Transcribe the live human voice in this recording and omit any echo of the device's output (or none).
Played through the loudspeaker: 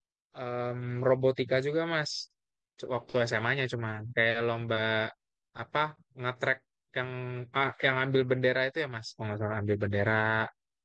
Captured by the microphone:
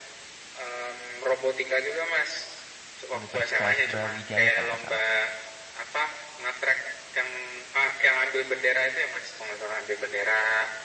Universitas Brawijaya kalau nggak salah.